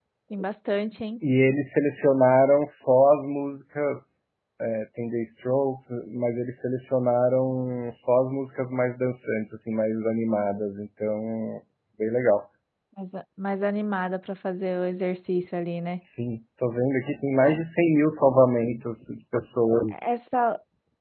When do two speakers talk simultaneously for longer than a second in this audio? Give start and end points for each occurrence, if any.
none

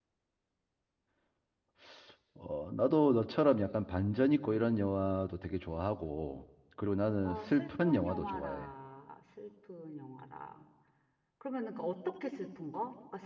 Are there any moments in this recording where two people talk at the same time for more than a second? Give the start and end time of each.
7.2-8.7

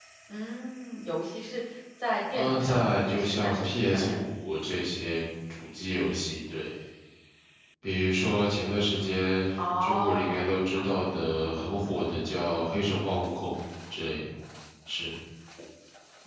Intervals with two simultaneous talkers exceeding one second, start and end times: 2.3-4.2, 9.6-11.1

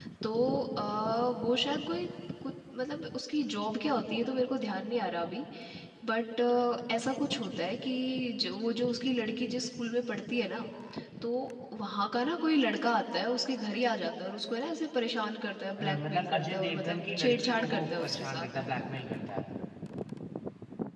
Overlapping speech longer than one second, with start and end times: 15.8-18.5

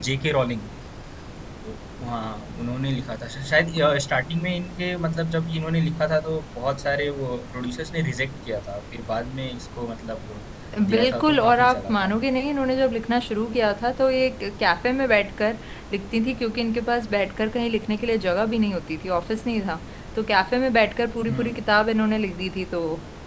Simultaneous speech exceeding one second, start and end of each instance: 10.9-12.2

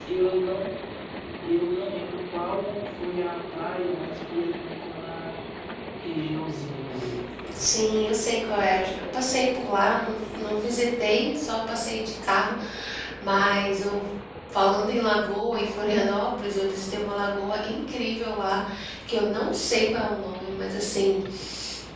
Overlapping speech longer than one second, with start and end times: none

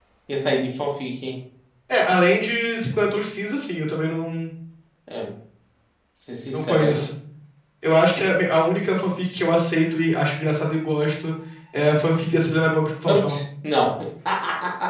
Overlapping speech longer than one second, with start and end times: none

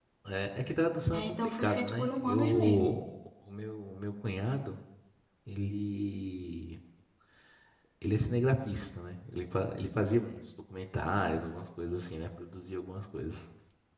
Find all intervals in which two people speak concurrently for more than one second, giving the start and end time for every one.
1.1-2.9

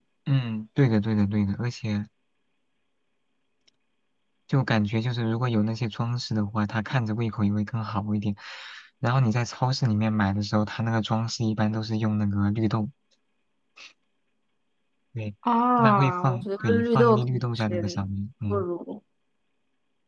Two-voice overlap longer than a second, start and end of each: 15.8-18.0

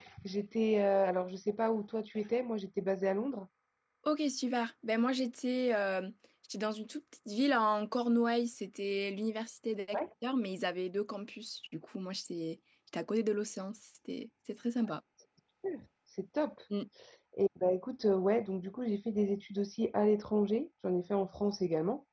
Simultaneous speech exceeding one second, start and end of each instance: none

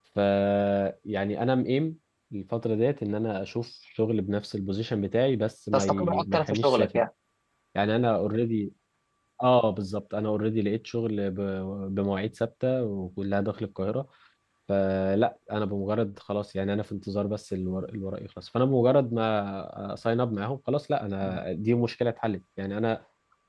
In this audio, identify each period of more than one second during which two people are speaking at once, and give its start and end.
5.7-7.0

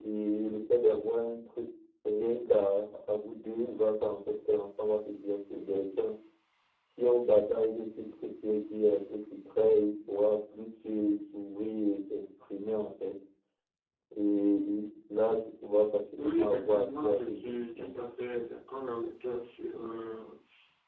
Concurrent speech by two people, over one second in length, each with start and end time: 16.2-17.9

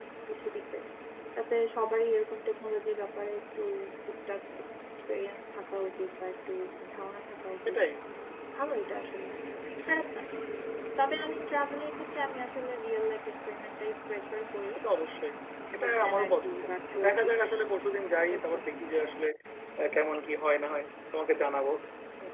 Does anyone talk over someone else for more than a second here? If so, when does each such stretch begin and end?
15.8-17.4

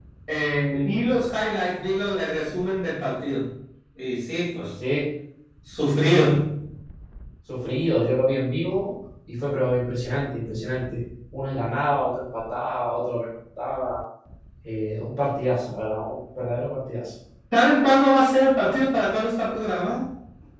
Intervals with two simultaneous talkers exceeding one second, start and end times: none

